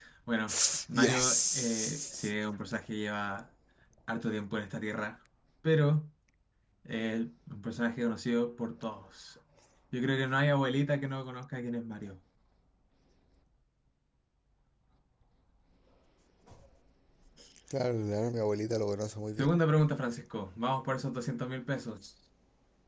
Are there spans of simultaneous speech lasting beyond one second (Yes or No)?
Yes